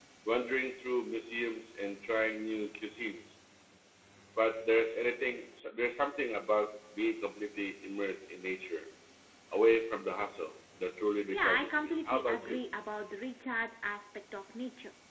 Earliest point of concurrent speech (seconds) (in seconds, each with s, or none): 11.3 s